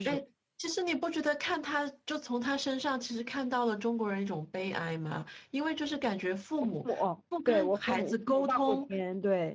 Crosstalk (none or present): present